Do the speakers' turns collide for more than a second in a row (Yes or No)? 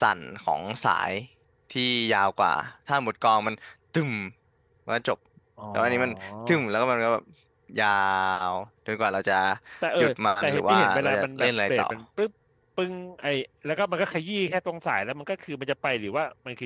Yes